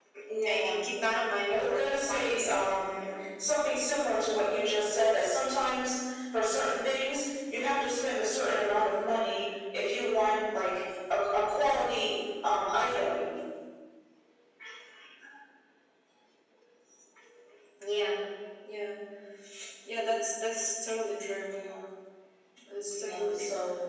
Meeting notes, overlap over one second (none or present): present